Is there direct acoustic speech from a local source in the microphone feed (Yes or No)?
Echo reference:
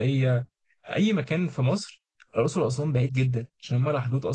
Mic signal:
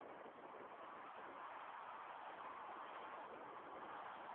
No